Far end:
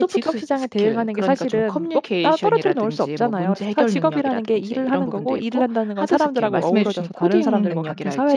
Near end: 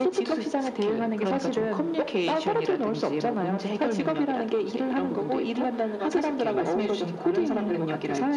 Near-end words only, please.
none

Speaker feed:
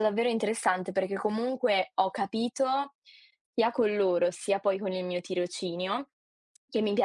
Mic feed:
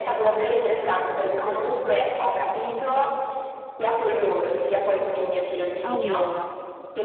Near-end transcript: Allora

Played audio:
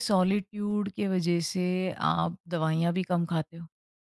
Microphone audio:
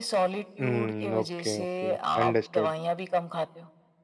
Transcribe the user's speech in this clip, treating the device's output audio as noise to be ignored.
हुँ, ओके, ओके, ओके, अंडरस्टूड।

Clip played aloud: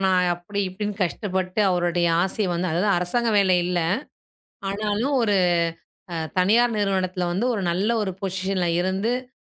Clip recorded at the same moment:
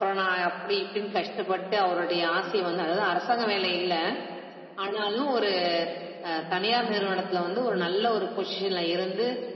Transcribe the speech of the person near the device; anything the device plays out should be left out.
கண்டிப்பாங்க. ரொம்ப சரியா சொன்னீங்க.

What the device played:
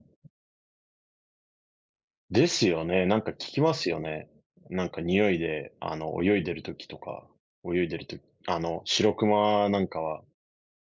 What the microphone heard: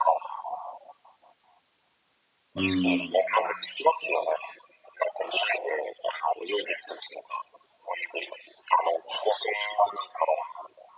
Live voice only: うーん。

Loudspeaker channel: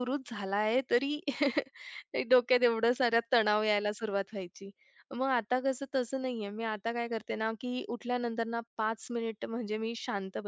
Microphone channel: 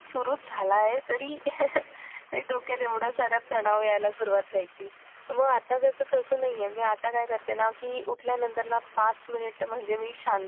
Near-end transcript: none

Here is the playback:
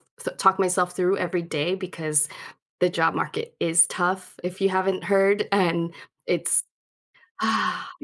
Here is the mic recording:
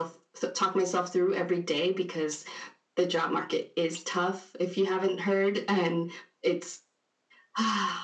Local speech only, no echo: none

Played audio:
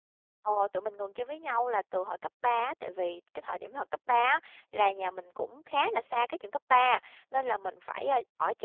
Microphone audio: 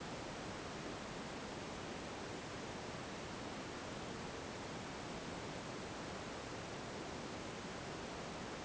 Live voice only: none

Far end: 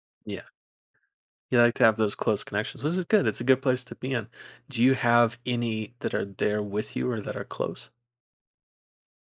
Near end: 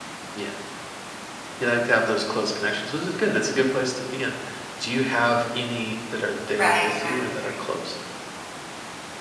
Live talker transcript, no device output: right, right, right,

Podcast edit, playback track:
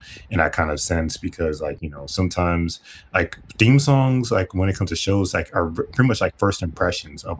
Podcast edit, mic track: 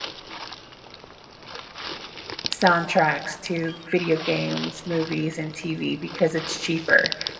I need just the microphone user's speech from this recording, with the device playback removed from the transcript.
soundtracks to video games, movies and TV because it's cheaper?

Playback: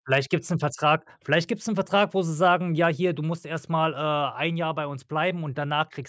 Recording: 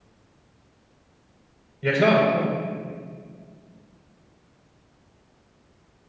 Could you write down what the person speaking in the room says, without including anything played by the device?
Ja klar, klar.

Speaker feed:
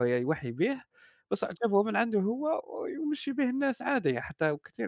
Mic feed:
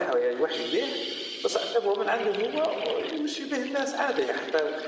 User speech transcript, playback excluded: none

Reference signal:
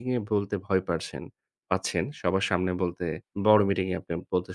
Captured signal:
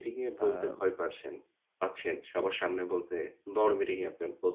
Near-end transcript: আম

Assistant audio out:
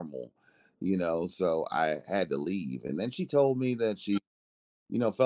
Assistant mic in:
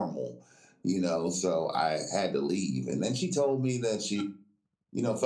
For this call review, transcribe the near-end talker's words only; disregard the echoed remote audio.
none

